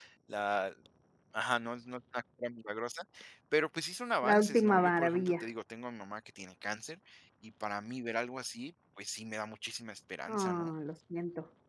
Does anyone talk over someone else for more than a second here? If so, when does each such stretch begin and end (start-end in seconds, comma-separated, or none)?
4.2-5.5